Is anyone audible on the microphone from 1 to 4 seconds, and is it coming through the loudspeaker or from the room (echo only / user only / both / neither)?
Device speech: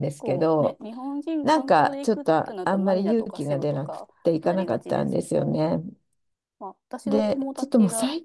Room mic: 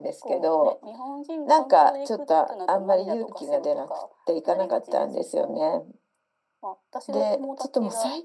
echo only